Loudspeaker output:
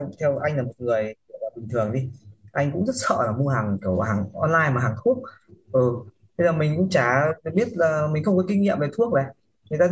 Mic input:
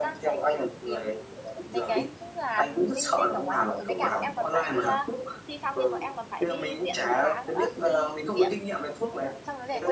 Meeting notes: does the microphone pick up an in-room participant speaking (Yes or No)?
Yes